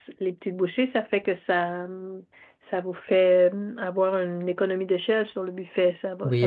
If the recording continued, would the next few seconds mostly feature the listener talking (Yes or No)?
Yes